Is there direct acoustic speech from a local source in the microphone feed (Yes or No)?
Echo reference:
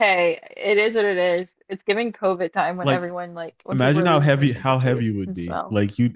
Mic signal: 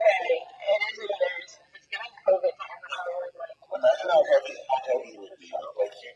No